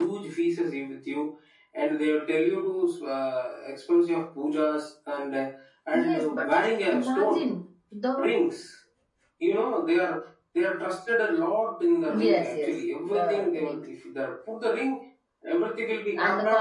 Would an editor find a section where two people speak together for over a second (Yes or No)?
Yes